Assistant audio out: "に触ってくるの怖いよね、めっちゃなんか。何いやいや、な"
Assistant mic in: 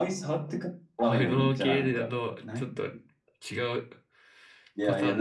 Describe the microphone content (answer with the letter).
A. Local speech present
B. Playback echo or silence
A